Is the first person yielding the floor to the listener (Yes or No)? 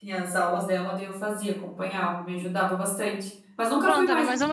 Yes